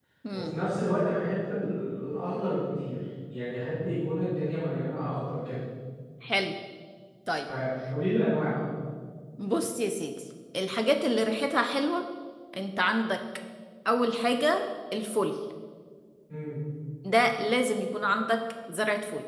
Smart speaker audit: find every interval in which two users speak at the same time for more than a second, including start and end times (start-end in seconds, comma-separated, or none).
none